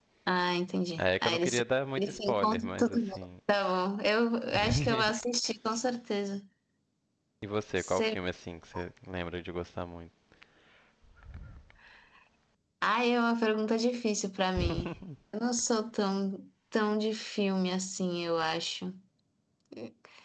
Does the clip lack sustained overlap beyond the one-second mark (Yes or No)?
No